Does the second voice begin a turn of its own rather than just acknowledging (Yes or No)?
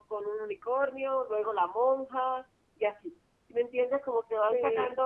No